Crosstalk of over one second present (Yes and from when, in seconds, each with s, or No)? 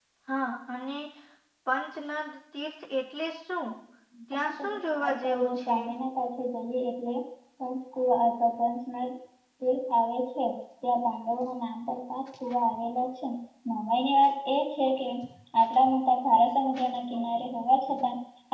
Yes, from 4.3 s